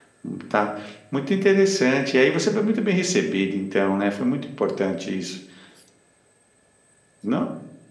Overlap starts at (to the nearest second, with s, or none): none